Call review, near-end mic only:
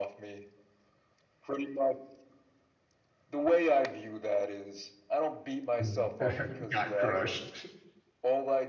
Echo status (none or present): present